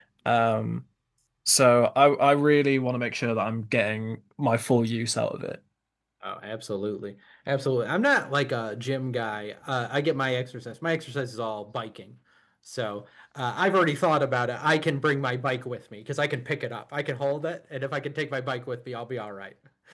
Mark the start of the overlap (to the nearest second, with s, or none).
none